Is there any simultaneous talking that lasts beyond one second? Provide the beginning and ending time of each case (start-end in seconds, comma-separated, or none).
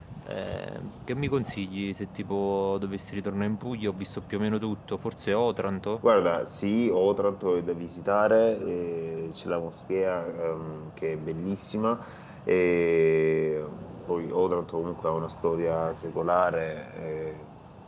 none